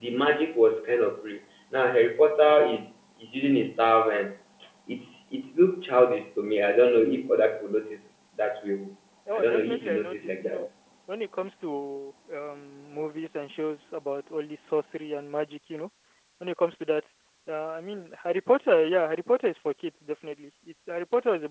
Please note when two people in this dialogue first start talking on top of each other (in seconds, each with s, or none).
9.3 s